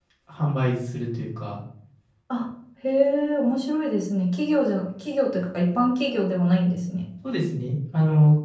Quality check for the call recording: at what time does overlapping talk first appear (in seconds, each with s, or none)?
none